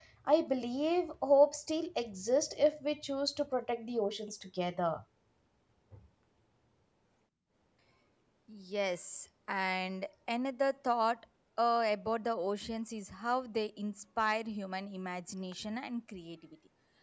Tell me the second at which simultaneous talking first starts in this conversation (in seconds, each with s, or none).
none